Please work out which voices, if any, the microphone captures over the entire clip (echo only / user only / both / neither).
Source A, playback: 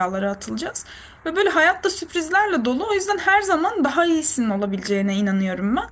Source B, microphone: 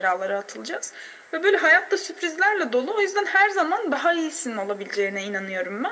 echo only